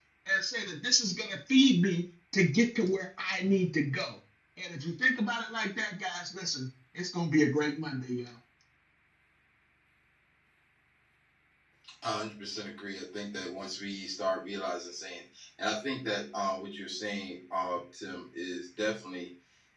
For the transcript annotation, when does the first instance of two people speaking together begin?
none

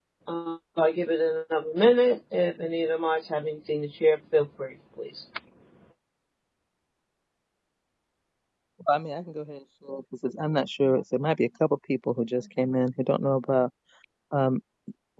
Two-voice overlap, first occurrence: none

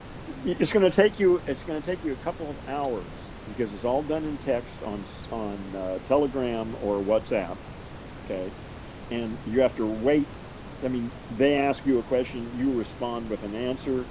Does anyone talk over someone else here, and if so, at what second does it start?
none

